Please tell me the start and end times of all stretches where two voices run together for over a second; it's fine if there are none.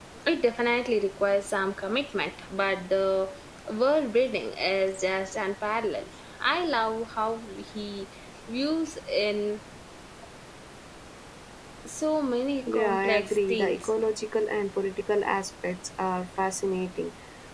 12.7-13.9

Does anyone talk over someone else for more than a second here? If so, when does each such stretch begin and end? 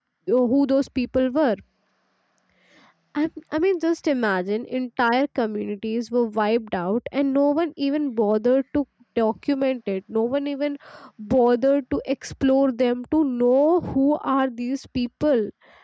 none

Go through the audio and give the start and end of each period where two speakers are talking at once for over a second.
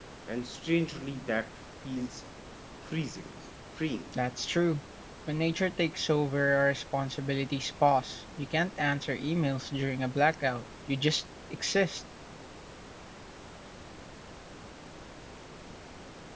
none

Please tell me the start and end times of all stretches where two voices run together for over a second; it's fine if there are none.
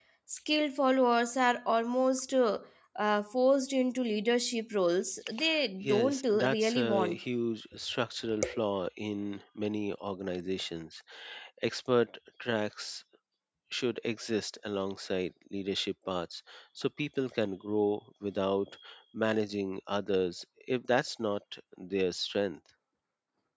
5.8-7.2

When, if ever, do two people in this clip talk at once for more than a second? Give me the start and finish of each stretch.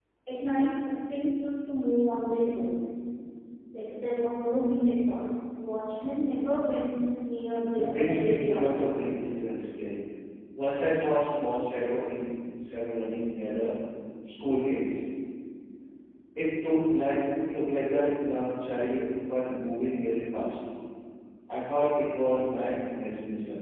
7.7-9.2

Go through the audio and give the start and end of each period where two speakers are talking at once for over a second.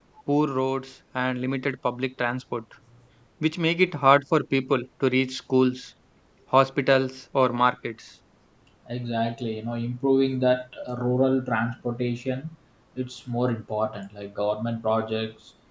none

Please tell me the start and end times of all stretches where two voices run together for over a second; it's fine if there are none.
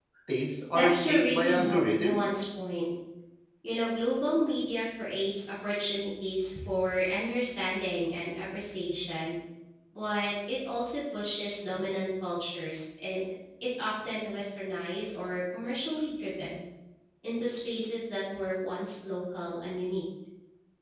0.8-2.2

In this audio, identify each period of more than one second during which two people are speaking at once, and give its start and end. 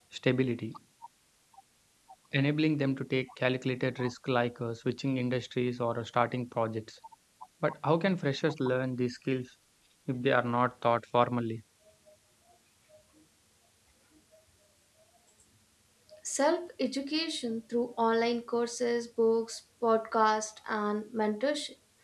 none

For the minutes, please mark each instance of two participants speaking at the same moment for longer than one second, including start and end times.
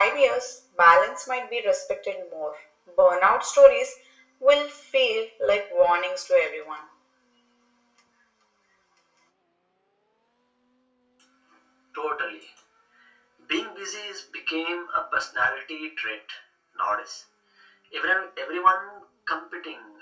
none

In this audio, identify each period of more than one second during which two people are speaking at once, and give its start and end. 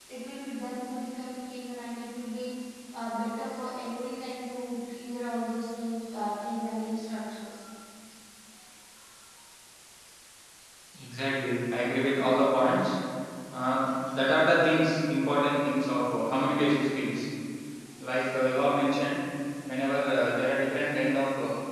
none

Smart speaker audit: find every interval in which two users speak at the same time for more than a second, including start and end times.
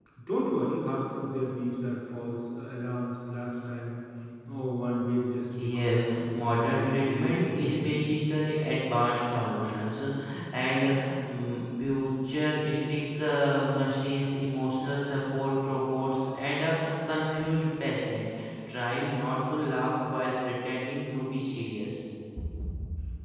5.6-7.9

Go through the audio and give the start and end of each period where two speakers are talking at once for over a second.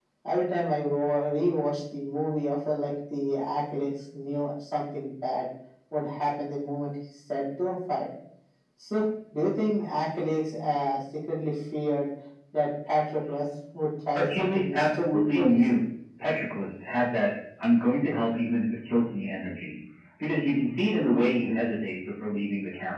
14.1-15.6

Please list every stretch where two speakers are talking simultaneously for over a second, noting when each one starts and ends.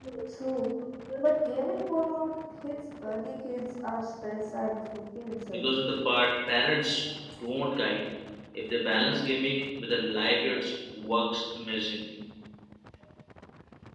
none

